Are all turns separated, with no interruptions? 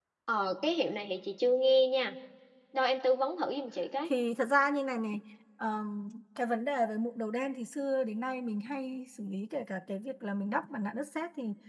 Yes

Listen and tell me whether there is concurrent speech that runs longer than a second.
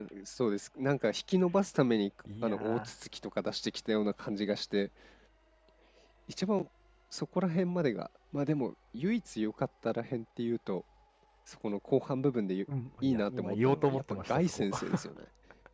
Yes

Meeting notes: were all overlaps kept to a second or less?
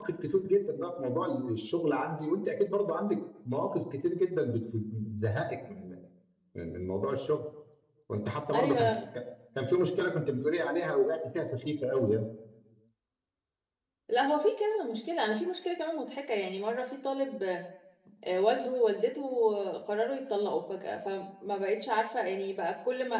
Yes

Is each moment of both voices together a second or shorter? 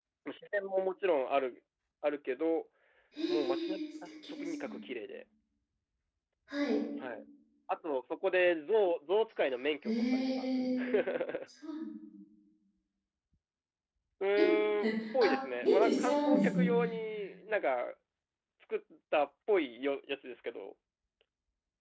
No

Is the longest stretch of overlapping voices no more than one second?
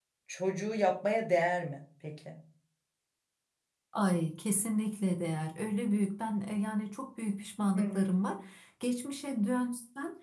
Yes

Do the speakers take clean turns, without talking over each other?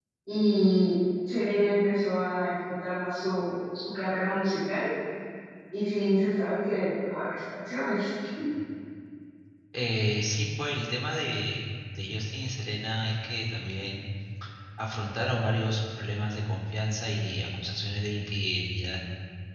Yes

